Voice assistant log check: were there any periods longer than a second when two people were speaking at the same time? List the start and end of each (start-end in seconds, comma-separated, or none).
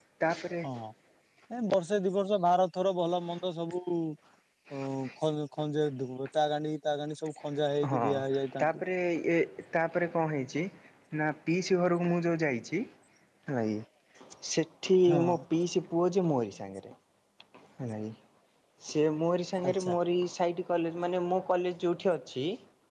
none